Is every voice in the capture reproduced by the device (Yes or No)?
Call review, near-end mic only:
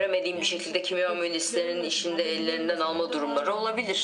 No